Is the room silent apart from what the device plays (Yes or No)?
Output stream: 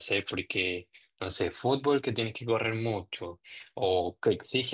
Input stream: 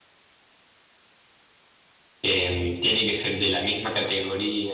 No